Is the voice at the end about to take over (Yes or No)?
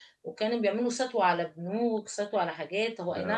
No